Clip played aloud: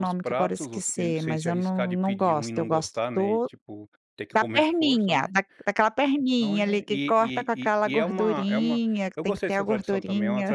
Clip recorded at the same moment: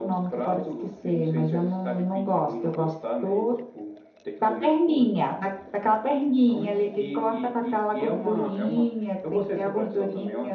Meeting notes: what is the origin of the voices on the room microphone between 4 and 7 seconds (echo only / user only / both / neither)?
echo only